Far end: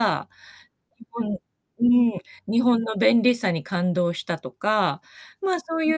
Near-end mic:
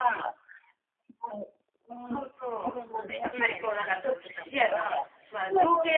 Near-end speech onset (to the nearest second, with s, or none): 2 s